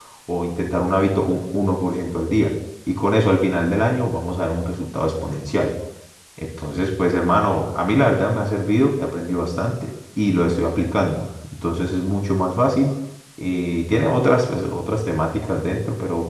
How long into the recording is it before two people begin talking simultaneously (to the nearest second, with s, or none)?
none